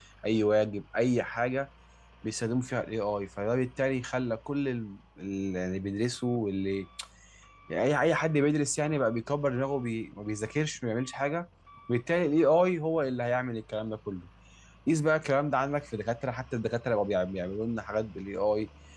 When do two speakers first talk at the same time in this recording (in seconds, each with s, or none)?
none